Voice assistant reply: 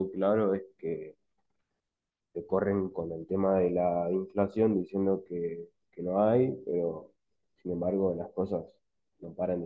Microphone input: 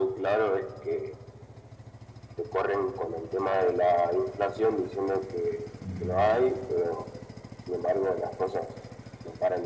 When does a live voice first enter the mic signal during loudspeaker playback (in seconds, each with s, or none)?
5.8 s